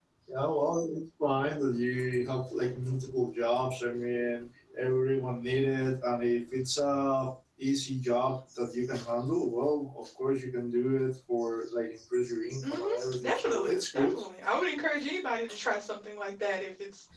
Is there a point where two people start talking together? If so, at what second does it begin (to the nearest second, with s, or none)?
13 s